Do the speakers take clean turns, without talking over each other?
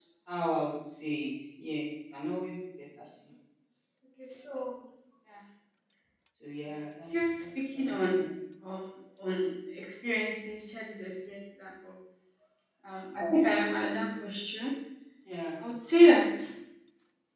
No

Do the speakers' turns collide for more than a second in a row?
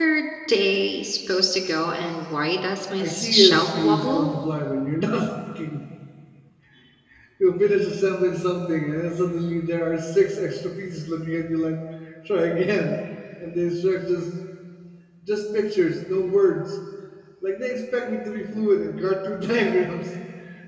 Yes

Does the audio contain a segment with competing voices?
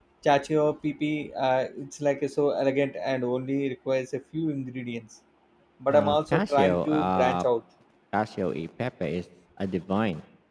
Yes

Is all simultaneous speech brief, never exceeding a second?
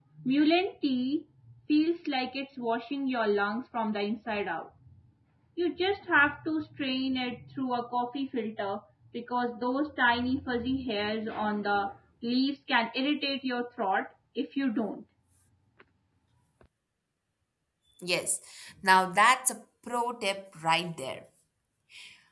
Yes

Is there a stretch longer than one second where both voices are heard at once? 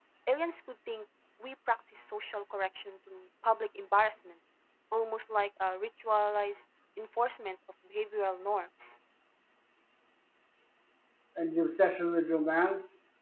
No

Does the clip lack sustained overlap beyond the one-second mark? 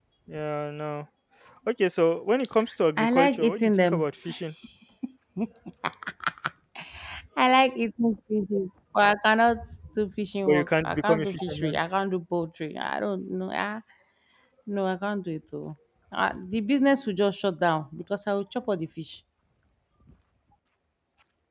No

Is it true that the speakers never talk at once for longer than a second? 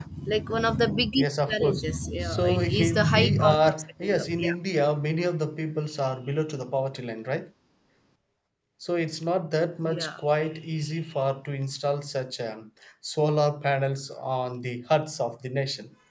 No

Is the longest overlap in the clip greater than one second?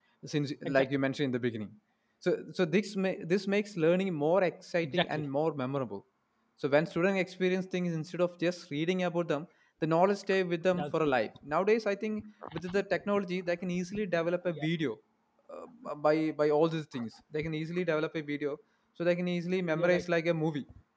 No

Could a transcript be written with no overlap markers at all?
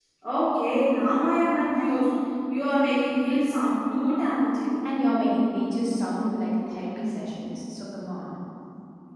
Yes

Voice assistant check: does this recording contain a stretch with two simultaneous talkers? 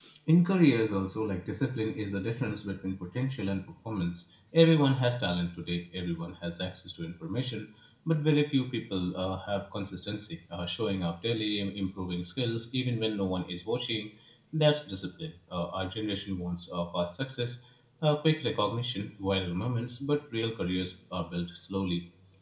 No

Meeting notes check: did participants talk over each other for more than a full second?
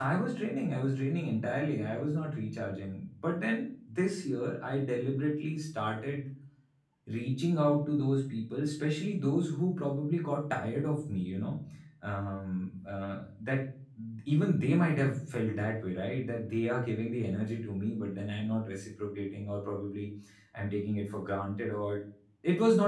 No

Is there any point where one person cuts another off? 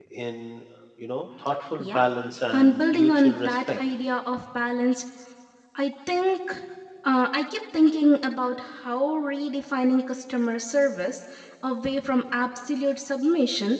Yes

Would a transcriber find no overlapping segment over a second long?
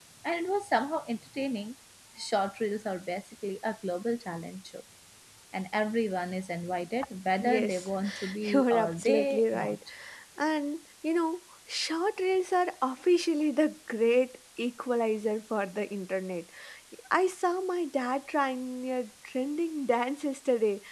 No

